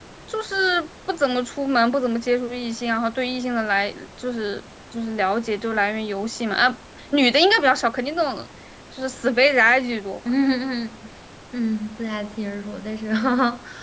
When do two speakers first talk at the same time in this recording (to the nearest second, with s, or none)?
none